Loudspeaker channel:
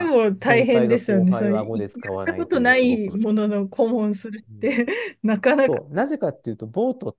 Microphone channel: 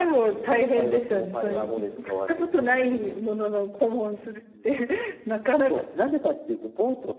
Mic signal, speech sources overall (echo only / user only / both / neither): echo only